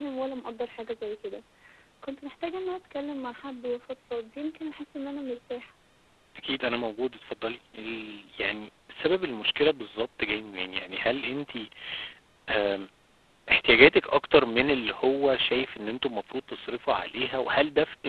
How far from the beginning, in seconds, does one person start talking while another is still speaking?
none

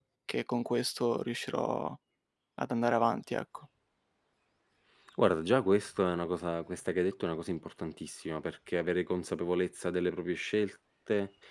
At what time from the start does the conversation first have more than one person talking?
none

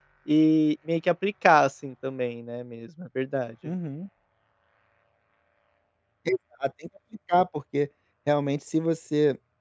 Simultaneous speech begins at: none

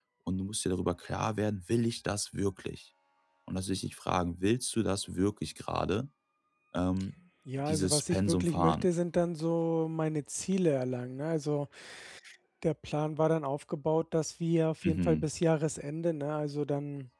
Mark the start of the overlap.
7.6 s

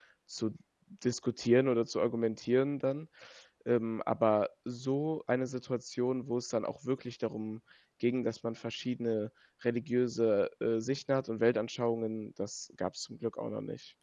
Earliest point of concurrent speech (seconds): none

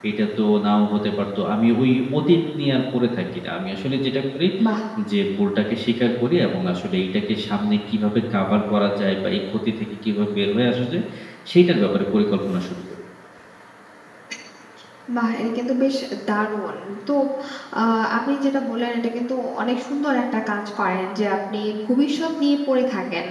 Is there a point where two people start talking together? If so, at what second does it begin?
none

